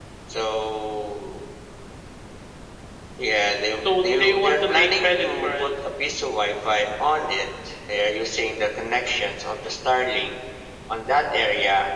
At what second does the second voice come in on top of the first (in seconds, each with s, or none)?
4.0 s